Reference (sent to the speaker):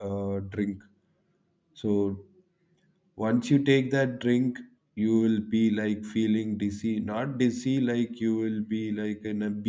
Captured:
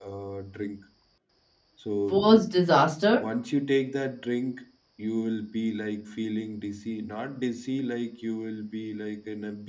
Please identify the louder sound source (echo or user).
user